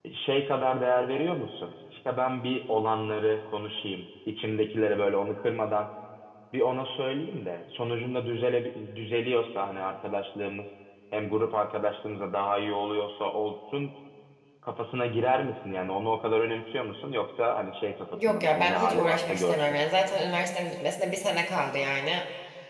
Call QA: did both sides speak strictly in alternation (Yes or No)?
No